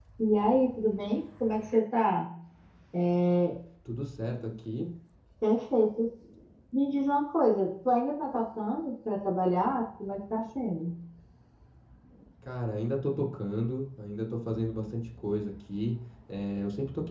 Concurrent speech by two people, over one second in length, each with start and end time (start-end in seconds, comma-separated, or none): none